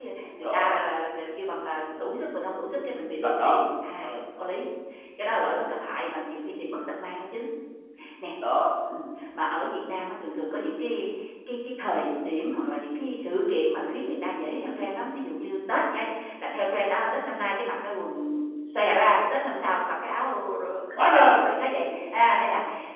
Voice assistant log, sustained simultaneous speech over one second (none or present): none